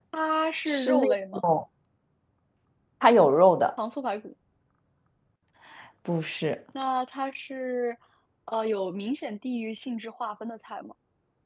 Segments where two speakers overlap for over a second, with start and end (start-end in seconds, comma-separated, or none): none